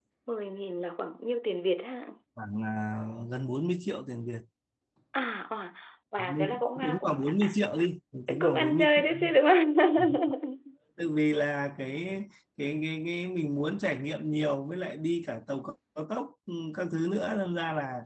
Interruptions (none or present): present